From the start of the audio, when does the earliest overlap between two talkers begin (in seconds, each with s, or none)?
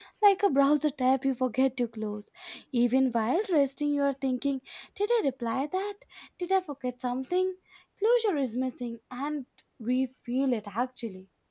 none